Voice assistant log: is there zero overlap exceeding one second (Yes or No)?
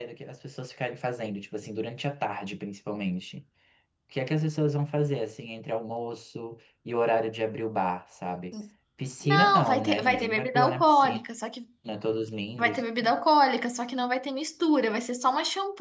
No